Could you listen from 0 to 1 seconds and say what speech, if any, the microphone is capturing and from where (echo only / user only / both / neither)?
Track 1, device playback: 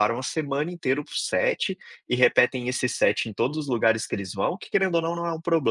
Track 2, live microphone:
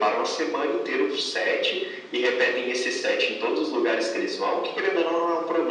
echo only